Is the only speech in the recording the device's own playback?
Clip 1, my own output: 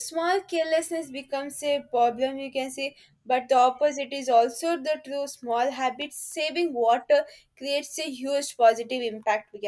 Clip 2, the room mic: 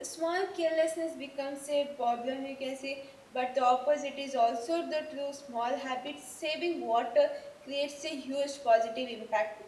Yes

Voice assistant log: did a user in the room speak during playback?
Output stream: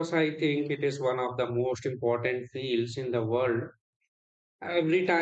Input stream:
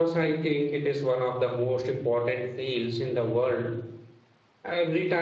No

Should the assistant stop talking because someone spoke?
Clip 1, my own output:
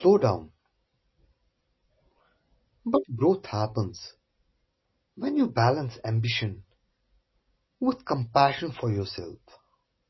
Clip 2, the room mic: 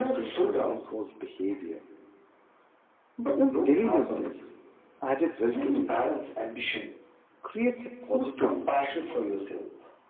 Yes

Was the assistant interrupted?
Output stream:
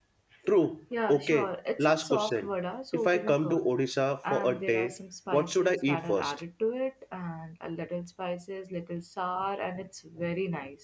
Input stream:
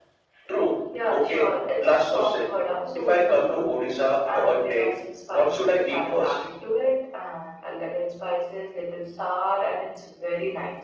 No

